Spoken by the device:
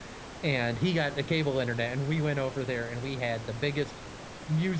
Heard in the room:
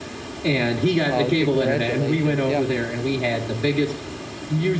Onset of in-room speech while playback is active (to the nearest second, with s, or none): 1 s